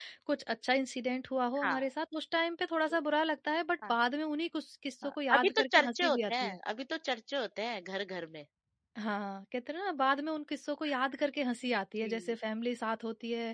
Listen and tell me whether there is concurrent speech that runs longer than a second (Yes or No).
Yes